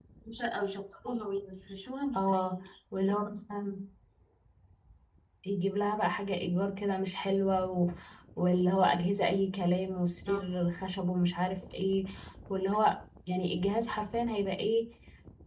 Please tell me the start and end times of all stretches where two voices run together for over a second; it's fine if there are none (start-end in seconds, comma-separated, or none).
none